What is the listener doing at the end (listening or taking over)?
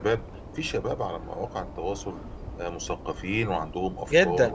taking over